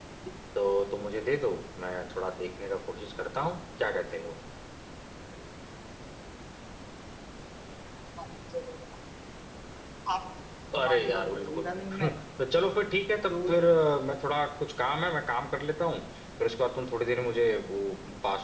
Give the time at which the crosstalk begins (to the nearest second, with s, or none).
11 s